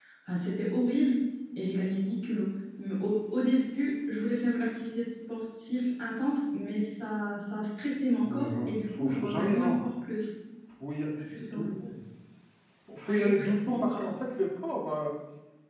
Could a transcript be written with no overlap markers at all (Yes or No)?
No